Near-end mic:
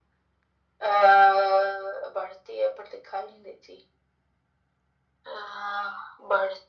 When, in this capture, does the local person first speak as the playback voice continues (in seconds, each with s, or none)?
none